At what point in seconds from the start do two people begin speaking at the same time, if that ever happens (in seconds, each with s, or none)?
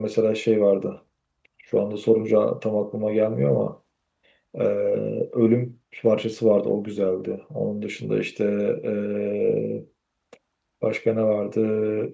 none